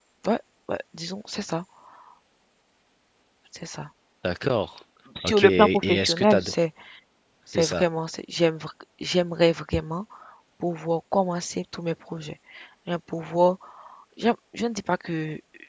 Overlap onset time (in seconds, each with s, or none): 5.2 s